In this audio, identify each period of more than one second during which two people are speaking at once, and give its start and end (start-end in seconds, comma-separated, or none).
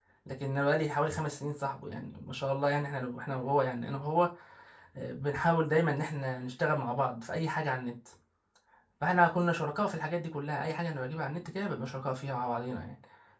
none